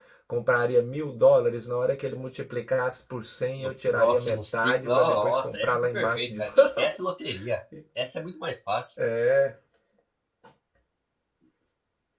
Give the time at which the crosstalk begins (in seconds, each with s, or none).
3.6 s